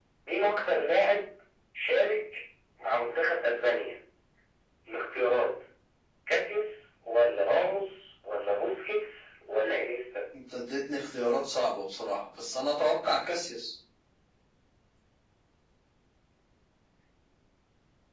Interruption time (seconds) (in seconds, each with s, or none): none